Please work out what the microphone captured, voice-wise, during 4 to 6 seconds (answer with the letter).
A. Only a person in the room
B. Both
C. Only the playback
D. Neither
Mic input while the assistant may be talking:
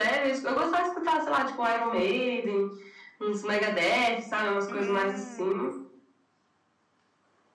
B